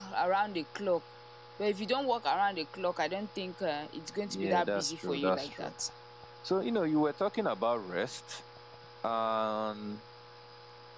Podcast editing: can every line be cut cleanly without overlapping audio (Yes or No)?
No